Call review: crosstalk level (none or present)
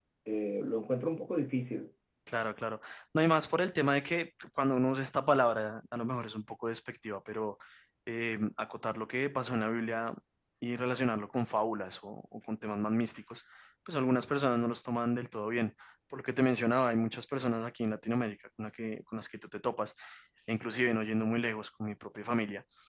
none